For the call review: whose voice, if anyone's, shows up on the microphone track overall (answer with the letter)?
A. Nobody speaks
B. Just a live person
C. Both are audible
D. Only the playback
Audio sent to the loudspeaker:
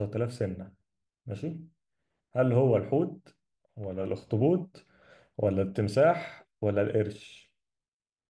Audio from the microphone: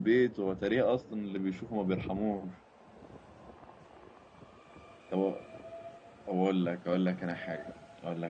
B